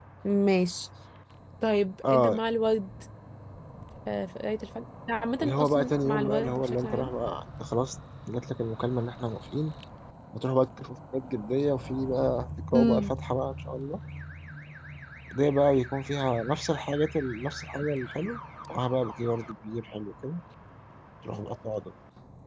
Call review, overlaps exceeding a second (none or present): present